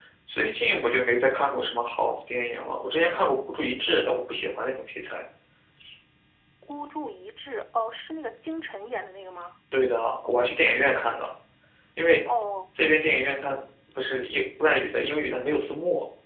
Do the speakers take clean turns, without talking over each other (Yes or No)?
Yes